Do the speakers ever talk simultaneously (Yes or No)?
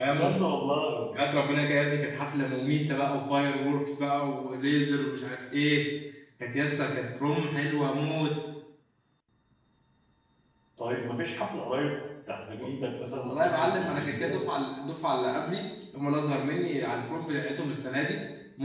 Yes